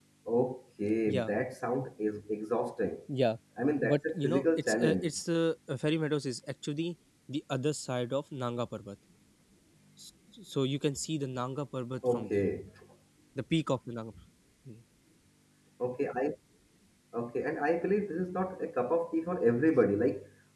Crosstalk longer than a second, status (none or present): present